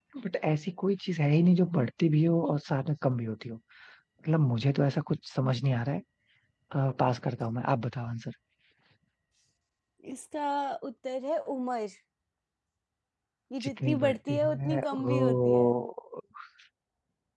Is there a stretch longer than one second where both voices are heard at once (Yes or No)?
Yes